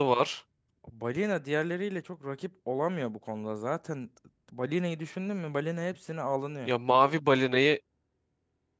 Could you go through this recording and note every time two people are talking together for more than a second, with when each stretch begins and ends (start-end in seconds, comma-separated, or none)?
none